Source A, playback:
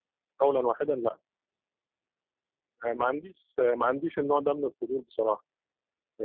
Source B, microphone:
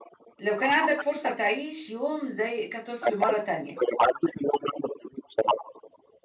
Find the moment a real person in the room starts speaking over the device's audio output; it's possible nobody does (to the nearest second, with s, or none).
0 s